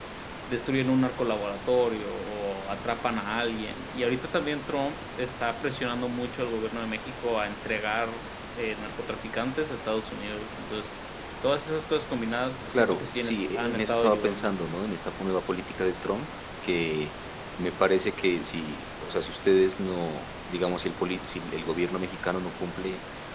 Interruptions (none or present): present